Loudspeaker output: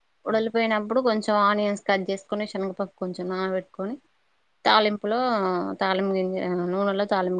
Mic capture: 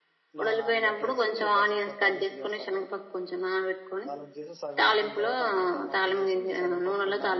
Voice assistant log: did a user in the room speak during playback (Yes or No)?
Yes